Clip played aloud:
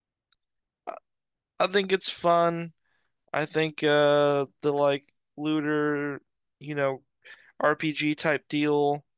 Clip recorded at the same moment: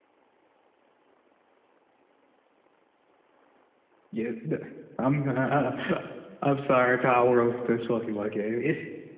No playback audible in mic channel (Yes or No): Yes